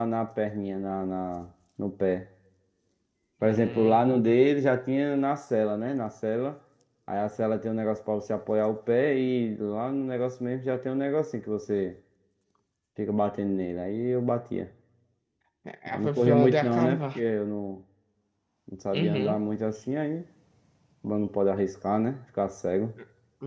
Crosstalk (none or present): present